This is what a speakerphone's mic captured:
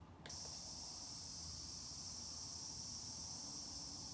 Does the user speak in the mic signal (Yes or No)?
No